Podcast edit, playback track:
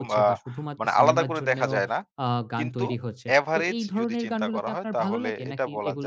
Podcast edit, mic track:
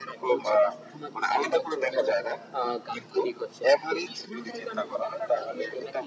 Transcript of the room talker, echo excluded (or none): none